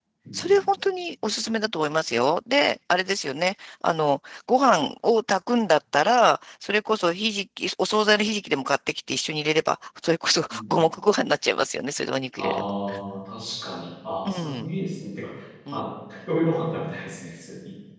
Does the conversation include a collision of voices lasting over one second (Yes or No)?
No